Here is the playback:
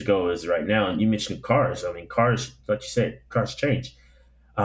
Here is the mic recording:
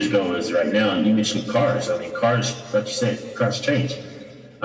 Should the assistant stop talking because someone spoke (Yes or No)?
No